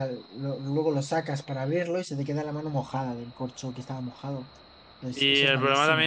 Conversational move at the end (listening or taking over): taking over